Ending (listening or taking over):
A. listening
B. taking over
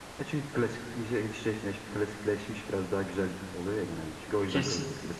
B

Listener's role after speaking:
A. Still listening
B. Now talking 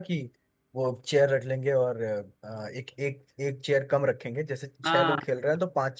A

